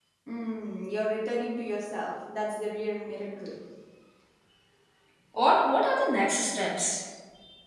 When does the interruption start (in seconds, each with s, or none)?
none